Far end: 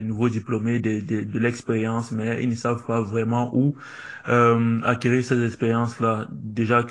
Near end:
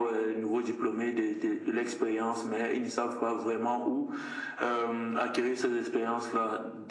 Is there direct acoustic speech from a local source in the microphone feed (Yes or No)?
No